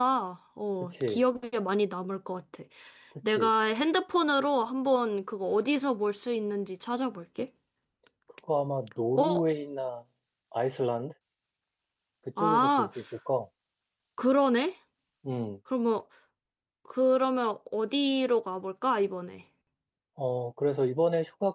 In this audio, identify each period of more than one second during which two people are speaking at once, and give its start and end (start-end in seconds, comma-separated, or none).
none